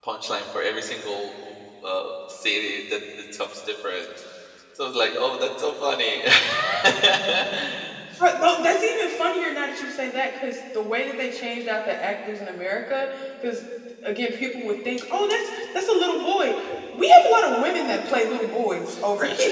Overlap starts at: none

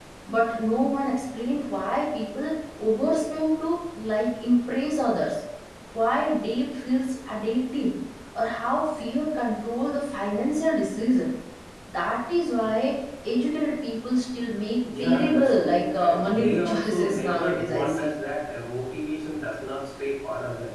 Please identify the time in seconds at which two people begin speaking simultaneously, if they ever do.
15 s

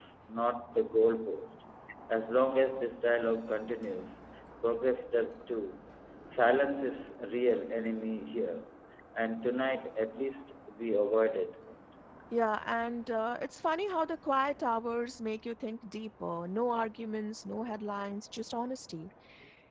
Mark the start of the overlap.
none

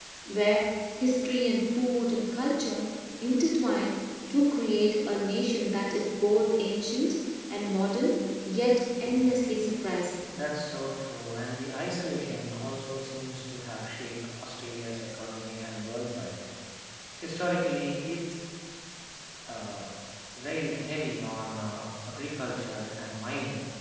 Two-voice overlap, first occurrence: none

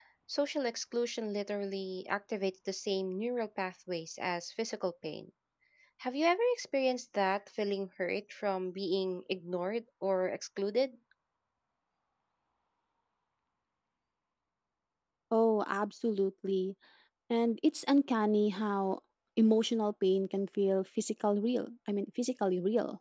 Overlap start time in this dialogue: none

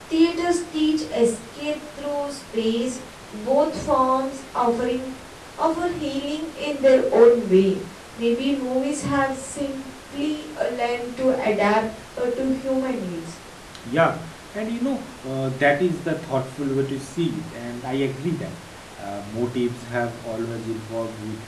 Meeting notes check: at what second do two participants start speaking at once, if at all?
none

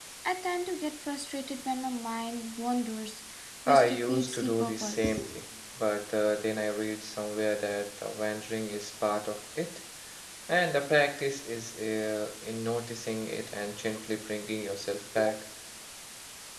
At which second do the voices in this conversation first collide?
4 s

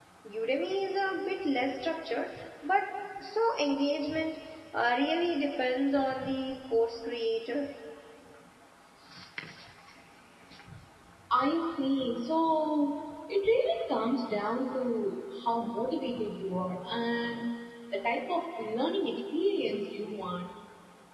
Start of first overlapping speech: none

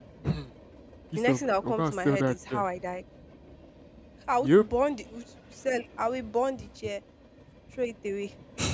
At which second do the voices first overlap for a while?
1 s

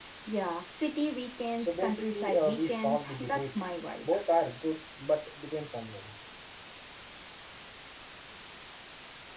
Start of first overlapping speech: 2 s

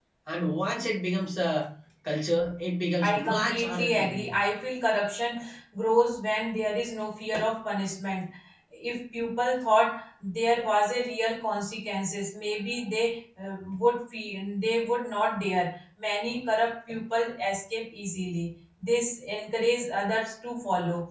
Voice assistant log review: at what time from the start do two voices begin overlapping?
3 s

